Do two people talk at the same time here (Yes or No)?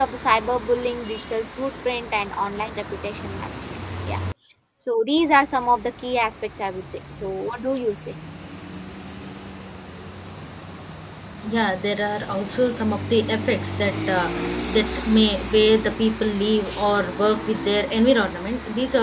No